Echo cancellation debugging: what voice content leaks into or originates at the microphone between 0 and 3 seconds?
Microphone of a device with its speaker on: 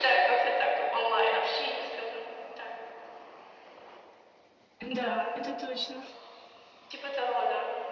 echo only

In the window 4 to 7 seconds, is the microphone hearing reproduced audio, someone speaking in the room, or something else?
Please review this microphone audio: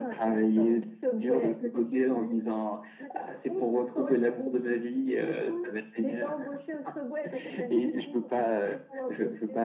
echo only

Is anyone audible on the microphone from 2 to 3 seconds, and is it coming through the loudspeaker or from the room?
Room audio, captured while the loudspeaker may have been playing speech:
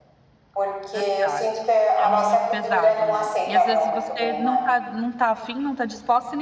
both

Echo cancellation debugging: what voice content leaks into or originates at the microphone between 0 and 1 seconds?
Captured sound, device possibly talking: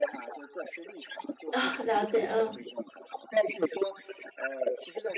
echo only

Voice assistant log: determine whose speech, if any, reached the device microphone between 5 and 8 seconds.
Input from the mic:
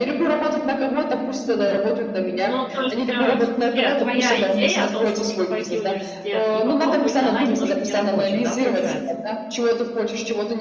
both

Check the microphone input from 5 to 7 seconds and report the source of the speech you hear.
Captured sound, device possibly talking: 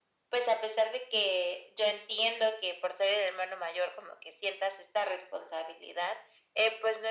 echo only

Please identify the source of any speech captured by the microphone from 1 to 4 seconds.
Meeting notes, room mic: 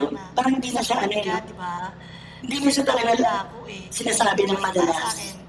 both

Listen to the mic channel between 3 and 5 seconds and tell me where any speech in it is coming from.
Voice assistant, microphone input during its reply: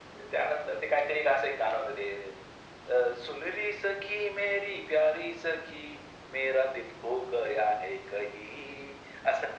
echo only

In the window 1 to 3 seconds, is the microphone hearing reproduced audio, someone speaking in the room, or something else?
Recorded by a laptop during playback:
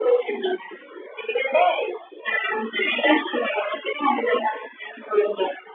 echo only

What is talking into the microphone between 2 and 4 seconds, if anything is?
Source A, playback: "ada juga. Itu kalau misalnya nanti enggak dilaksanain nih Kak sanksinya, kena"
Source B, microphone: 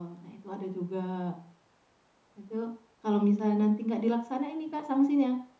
echo only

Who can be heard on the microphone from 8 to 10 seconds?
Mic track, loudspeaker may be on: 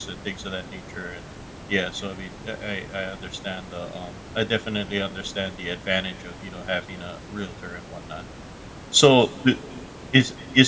user only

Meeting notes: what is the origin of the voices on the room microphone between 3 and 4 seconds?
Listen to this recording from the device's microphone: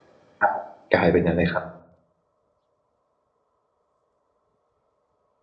neither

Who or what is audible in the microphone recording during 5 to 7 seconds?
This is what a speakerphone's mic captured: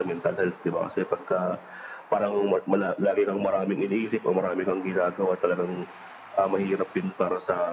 echo only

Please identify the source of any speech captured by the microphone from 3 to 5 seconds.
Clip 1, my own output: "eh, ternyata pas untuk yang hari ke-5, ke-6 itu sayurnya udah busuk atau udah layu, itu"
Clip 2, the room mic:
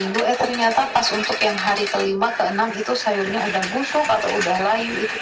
echo only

